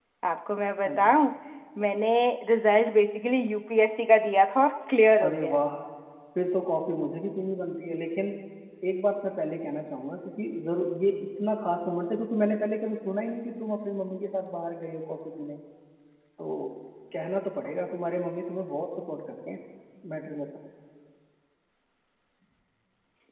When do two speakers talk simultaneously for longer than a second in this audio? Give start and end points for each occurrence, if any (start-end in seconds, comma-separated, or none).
none